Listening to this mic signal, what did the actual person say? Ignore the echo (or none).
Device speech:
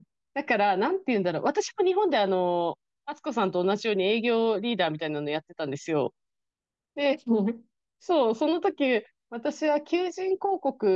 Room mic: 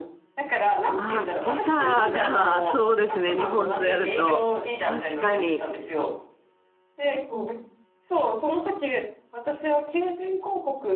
あ、時差が、そうですね。日本とやると。確かに。